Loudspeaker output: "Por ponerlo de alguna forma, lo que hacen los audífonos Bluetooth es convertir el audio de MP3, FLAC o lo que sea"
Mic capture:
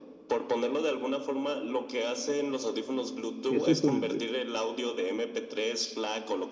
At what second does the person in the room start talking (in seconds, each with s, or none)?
3.5 s